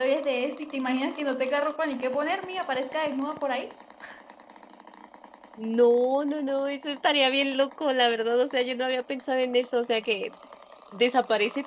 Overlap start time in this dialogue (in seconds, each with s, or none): none